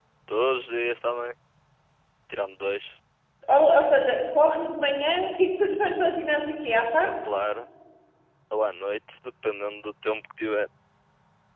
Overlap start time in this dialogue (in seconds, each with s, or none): none